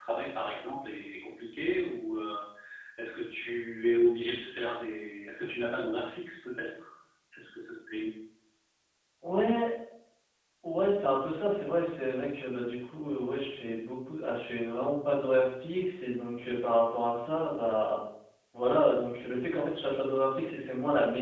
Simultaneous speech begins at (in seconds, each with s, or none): none